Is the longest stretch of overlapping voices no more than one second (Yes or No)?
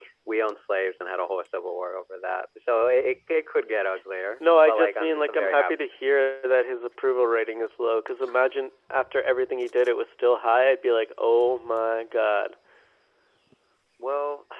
No